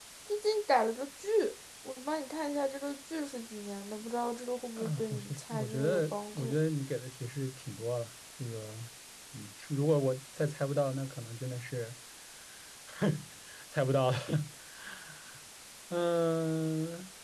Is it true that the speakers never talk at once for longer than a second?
No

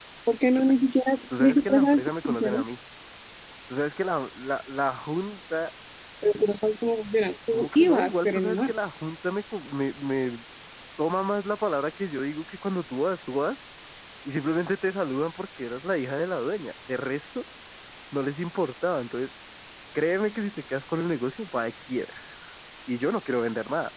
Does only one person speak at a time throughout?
No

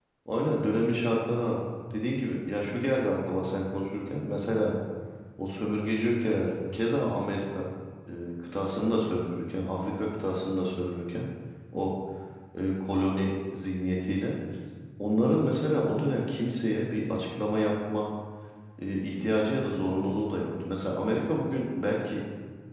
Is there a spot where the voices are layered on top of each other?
No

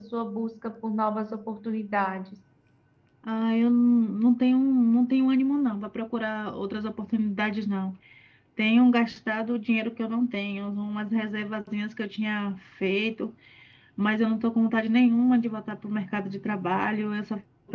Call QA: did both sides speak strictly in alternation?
Yes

